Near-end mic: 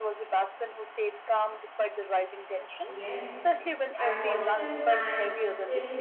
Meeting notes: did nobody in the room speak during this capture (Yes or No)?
No